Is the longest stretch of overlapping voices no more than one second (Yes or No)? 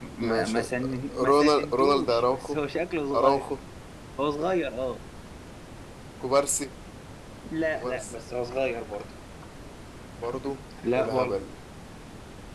No